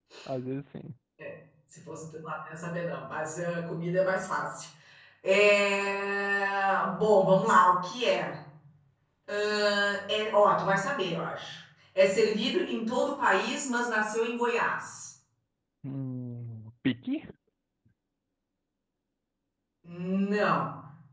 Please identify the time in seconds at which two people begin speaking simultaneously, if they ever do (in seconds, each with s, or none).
none